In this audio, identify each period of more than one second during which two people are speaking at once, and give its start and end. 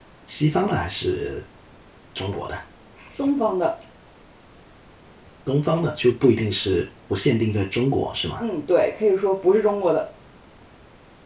none

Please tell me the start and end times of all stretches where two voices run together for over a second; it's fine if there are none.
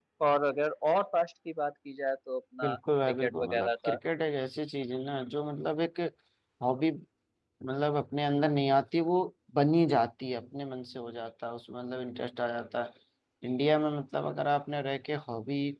2.6-4.0

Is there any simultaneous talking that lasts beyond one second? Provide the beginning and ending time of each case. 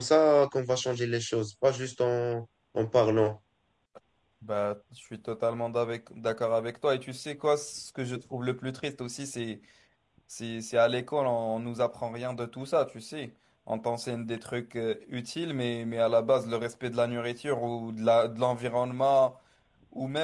none

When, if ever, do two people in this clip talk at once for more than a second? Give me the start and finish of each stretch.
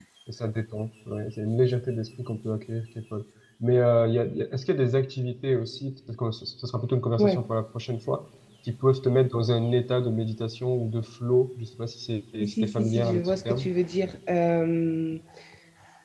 12.4-13.7

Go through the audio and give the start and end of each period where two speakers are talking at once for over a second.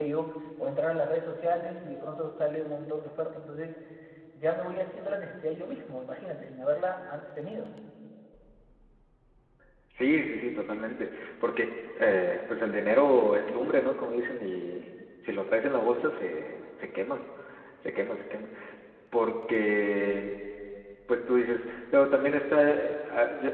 none

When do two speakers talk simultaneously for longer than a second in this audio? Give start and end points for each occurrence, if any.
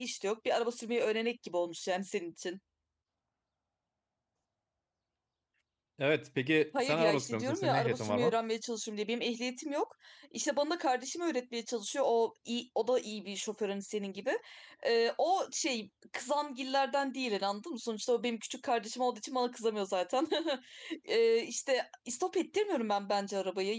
6.8-8.3

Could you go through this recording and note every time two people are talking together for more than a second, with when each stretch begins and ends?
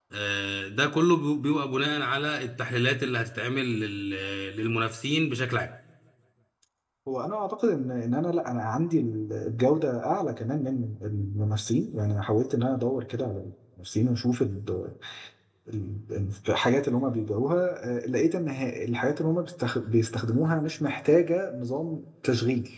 none

